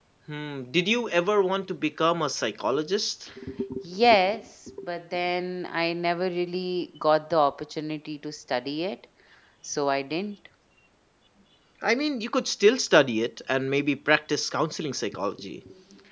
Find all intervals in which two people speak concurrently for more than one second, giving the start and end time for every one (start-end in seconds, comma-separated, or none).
none